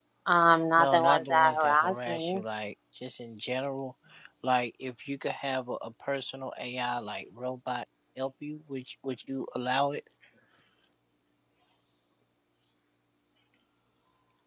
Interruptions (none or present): present